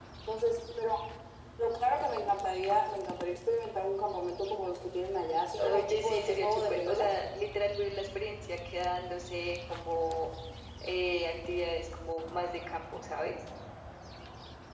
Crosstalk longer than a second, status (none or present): present